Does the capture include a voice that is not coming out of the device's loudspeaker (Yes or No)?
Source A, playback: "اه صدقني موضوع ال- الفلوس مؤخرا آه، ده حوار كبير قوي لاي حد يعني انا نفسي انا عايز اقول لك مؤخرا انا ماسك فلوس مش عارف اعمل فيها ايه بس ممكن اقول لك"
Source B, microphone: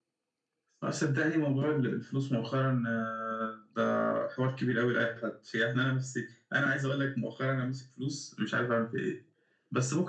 No